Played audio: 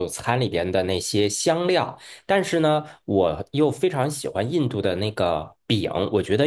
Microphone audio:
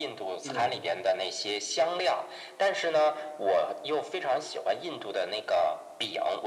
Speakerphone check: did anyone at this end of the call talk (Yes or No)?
Yes